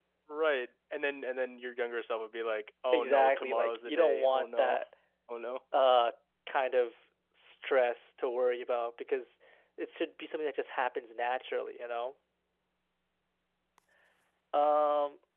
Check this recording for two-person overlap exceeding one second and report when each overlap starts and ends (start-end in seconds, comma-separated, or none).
2.9-4.8